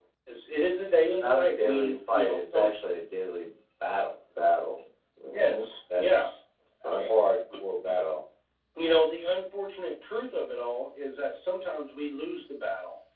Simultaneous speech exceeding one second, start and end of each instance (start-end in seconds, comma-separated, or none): 1.0-2.7